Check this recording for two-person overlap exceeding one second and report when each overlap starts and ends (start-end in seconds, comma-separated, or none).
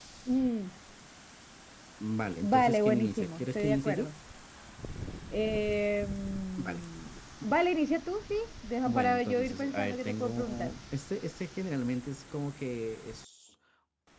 2.4-4.1, 8.8-10.7